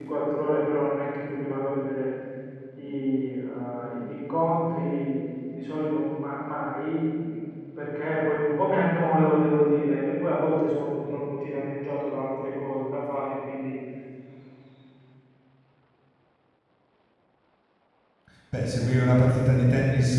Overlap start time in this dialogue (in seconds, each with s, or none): none